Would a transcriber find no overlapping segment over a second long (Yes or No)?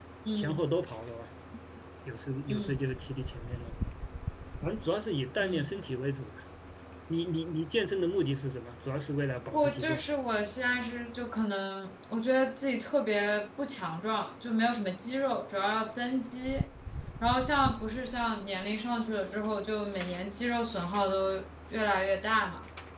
Yes